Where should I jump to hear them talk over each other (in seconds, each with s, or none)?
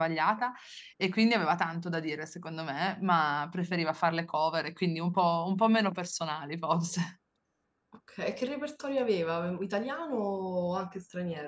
none